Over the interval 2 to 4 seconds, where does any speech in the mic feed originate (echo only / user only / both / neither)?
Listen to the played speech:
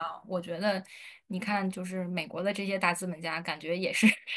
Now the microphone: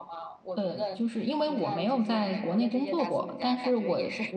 both